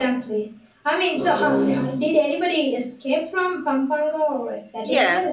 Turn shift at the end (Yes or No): Yes